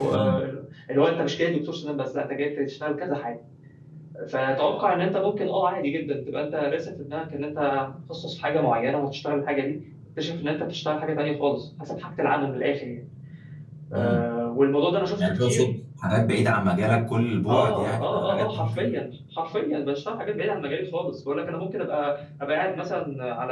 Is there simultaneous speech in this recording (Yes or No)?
Yes